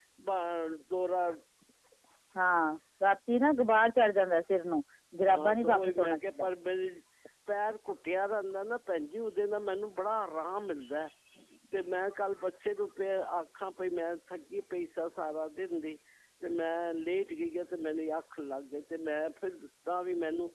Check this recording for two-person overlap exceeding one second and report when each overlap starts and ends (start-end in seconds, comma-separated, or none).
5.2-6.5